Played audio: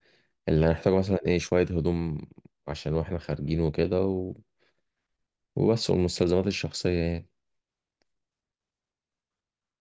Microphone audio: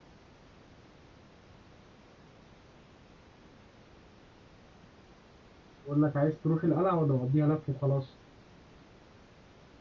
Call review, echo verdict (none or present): none